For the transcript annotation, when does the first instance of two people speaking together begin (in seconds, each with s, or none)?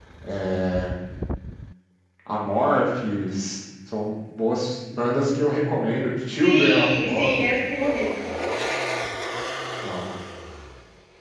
6.3 s